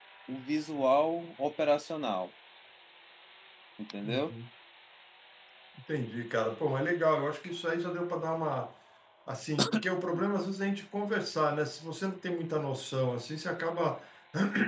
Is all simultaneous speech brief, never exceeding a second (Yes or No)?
Yes